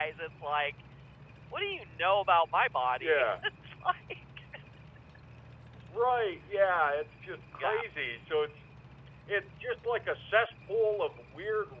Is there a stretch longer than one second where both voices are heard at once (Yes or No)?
No